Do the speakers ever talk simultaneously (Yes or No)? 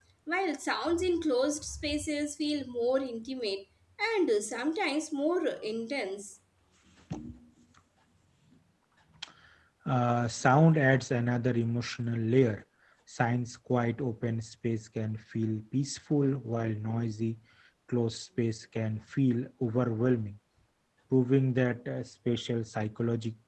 No